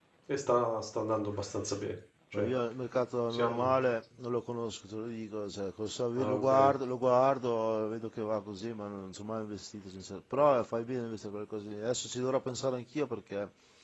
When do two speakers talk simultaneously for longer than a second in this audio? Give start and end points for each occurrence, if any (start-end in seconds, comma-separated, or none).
none